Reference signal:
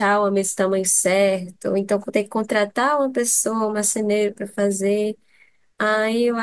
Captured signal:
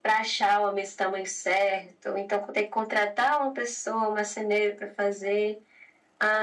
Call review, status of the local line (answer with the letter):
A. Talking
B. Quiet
B